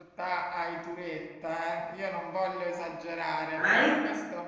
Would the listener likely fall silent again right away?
Yes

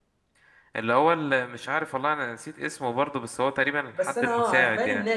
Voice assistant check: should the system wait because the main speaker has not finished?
No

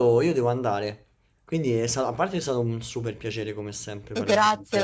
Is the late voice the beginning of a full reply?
Yes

